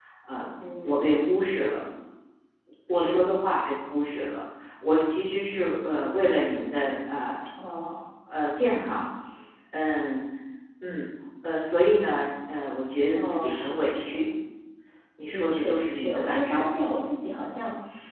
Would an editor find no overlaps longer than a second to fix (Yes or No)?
No